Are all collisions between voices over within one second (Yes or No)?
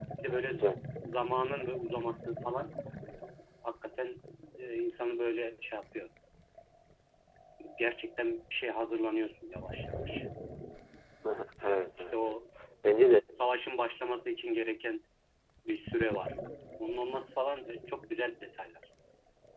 Yes